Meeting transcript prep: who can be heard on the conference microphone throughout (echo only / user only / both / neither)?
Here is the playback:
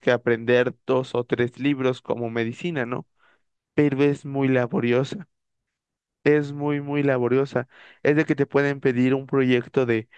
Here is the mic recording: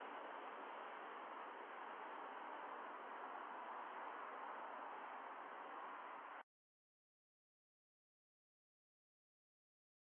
neither